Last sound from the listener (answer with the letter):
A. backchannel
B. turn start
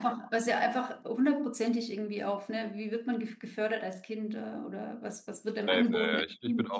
B